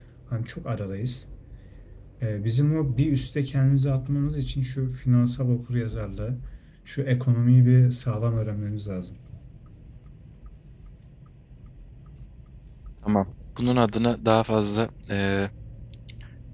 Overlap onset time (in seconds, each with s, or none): none